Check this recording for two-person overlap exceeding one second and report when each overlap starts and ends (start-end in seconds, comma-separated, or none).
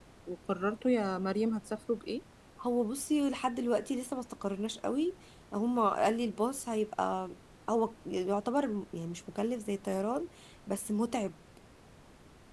none